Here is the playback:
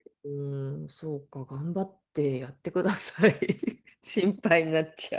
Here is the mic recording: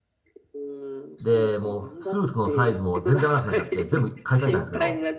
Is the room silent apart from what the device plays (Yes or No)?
No